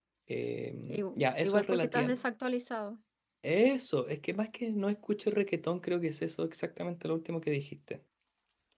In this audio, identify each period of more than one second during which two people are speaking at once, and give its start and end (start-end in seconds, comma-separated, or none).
0.9-2.1